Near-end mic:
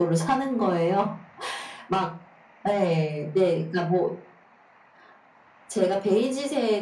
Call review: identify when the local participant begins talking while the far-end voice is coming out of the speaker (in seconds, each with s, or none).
none